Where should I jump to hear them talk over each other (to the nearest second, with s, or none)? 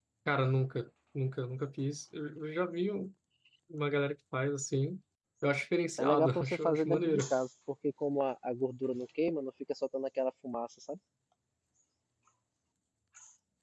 6 s